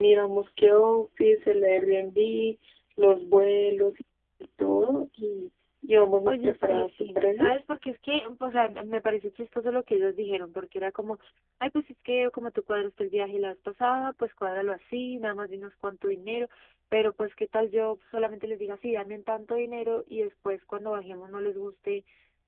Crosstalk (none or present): present